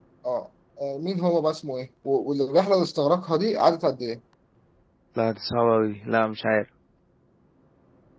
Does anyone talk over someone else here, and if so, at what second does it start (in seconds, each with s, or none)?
none